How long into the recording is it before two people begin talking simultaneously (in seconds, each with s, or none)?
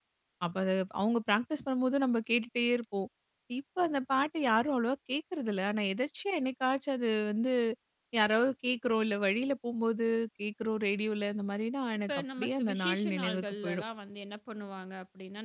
12.1 s